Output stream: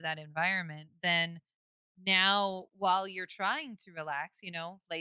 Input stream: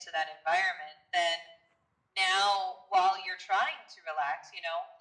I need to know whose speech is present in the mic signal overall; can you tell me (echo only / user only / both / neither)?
echo only